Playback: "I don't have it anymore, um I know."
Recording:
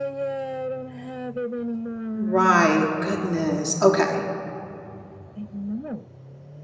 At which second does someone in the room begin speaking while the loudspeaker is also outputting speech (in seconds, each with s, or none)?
2.1 s